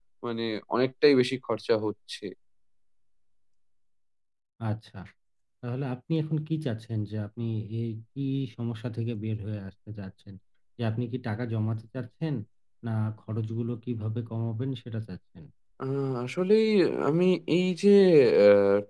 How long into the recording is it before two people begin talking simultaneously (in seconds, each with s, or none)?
none